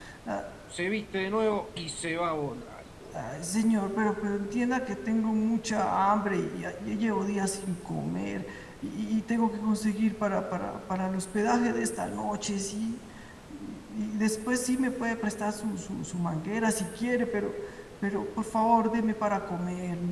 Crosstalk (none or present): none